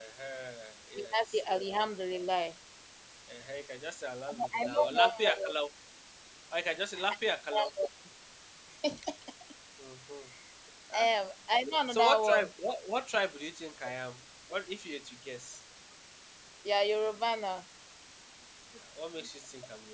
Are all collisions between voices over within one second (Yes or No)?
No